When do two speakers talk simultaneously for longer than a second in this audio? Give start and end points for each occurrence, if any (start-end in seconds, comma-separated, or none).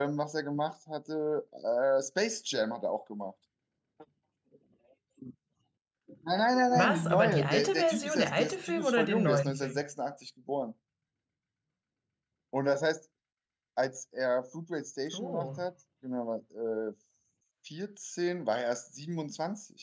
6.8-9.8